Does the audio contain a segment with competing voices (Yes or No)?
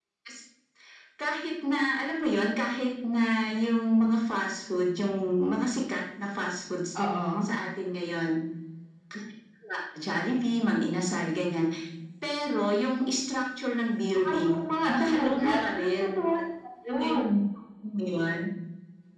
Yes